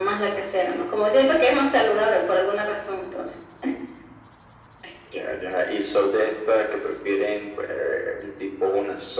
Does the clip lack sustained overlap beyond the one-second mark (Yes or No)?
Yes